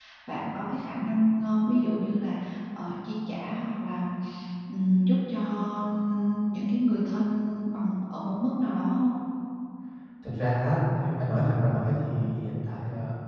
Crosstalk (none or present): none